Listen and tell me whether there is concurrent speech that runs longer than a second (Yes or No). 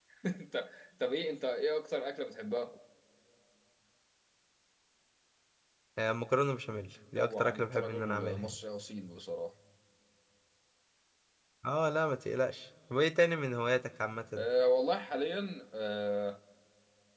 Yes